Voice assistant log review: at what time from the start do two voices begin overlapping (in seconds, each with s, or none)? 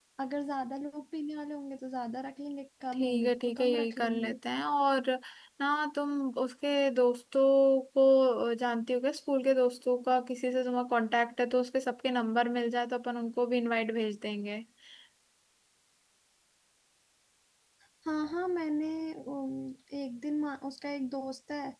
2.9 s